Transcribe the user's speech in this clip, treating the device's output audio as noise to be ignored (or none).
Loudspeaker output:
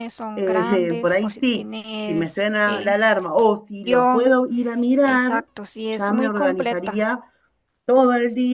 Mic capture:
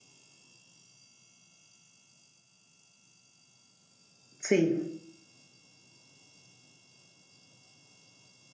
Sí,